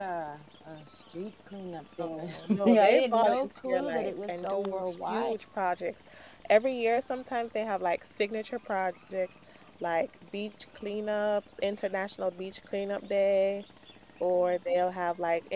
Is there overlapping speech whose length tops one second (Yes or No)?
Yes